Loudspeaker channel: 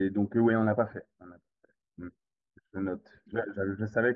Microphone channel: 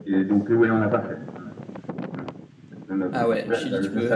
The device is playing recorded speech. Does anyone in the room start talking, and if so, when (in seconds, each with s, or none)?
3.1 s